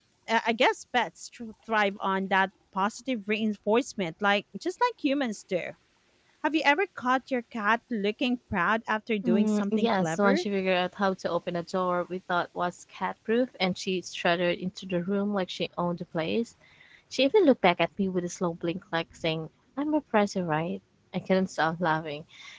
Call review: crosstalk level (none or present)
present